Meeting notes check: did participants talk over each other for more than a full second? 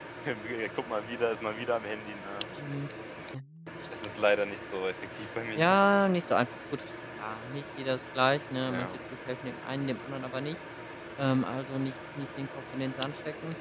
No

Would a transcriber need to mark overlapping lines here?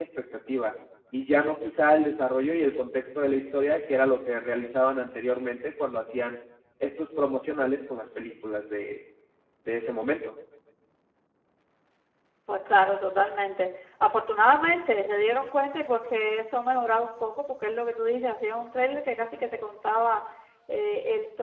No

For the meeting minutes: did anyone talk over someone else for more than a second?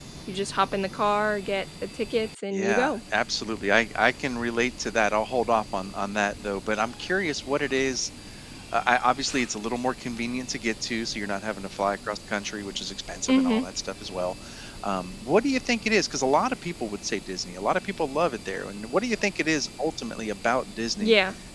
No

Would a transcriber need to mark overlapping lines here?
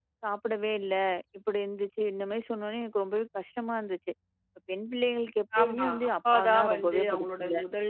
Yes, from 5.5 s

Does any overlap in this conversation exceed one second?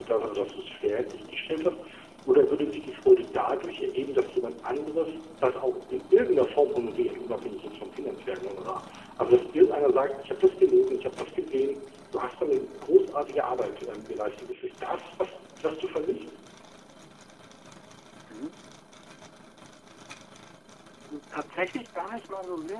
No

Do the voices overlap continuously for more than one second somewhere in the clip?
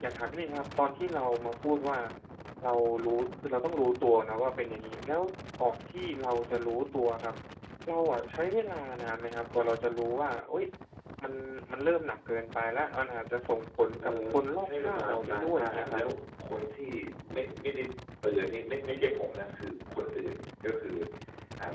Yes, from 14.0 s

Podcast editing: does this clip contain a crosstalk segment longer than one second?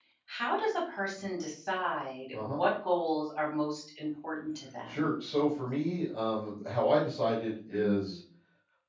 No

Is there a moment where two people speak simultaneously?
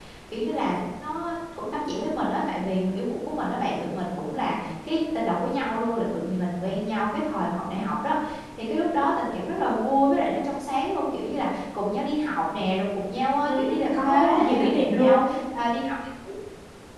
Yes, from 13.4 s

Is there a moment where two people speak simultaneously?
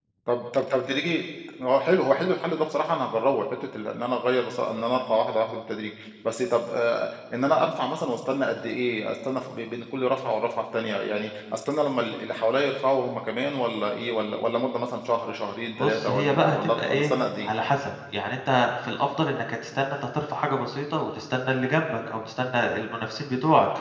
Yes, from 15.8 s

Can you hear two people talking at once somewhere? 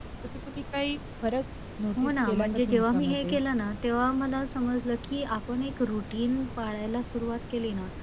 Yes, from 2.0 s

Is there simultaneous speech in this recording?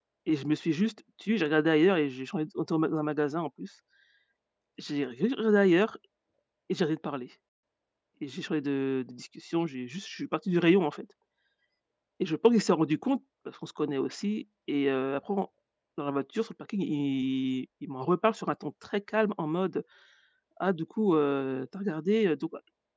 No

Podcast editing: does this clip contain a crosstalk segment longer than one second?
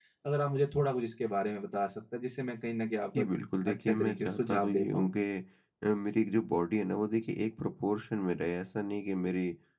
Yes, from 3.7 s

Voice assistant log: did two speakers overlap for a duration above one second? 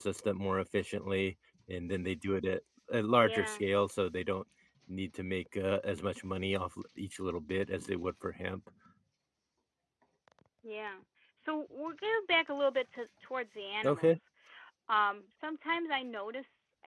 No

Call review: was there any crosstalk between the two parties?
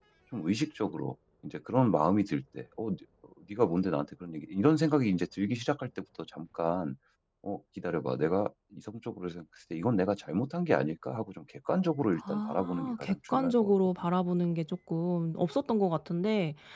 Yes, from 12.2 s

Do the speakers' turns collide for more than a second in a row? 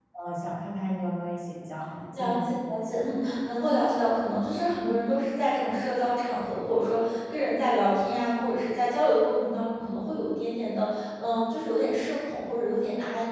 No

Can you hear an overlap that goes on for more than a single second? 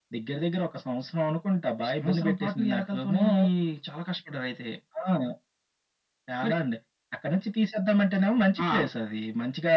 Yes, from 2.0 s

